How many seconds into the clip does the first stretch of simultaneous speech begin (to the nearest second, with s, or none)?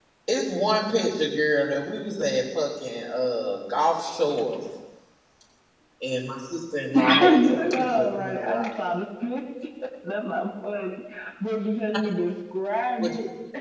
7 s